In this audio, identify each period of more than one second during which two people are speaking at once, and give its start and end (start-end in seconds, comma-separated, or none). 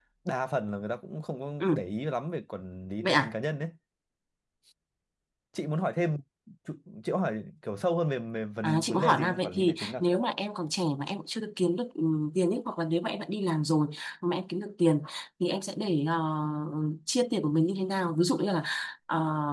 8.6-9.9